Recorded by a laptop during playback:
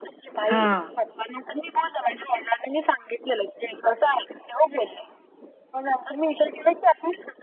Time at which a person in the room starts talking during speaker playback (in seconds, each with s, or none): 0.5 s